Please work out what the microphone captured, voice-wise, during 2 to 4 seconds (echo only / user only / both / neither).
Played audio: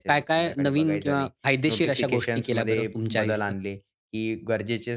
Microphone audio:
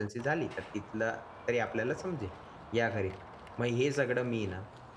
user only